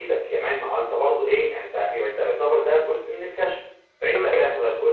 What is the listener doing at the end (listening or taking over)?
listening